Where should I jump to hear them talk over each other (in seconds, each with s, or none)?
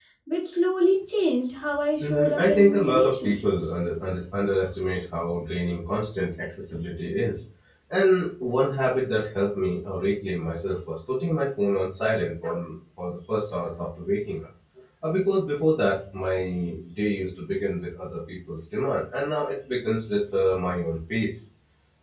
2.0 s